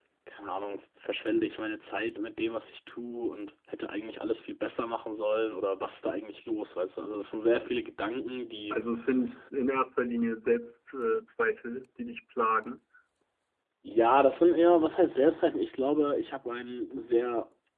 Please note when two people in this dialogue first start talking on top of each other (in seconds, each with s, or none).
none